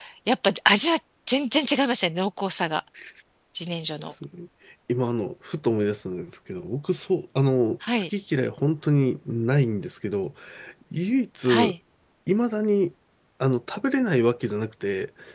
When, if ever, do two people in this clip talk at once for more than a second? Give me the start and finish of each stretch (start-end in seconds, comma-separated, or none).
none